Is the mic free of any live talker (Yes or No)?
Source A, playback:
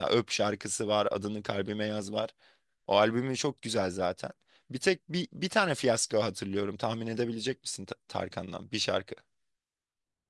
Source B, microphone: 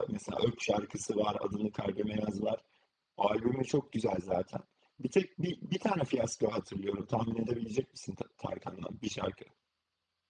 Yes